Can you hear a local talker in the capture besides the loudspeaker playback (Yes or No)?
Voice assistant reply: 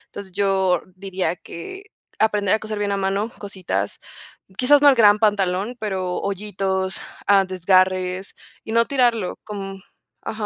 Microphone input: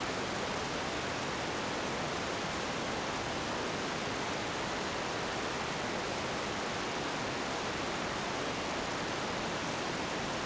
No